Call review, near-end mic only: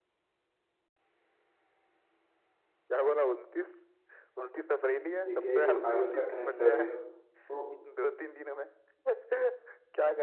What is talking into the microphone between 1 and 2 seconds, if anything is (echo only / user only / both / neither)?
neither